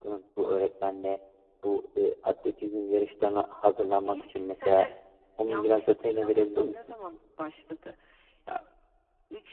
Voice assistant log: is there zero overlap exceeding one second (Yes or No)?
No